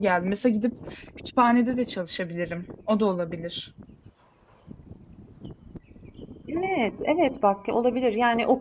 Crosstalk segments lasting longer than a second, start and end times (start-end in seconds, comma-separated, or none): none